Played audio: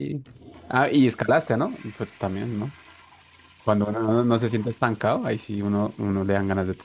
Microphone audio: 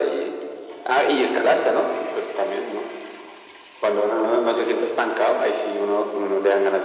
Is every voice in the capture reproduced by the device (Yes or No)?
Yes